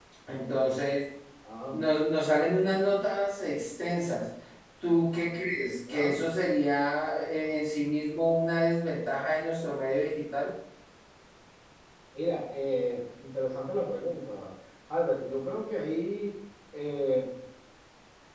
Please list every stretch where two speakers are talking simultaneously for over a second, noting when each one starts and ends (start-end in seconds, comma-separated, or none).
none